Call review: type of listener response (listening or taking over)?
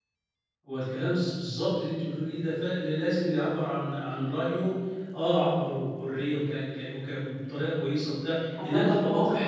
taking over